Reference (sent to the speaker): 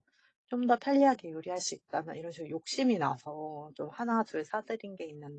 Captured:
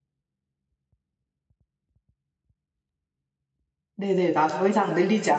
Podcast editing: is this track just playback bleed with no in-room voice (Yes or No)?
No